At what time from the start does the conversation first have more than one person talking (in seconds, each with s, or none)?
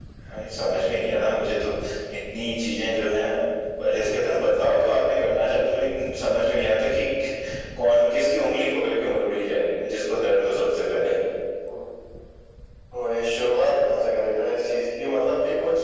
none